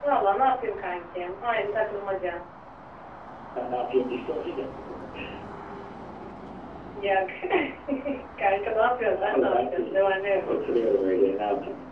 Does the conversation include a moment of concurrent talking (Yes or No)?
Yes